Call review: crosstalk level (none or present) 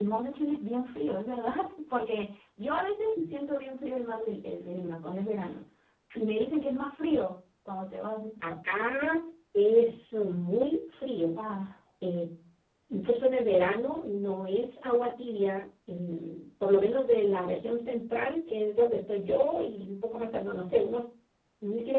none